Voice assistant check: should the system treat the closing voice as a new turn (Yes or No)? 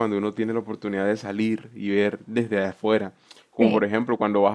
No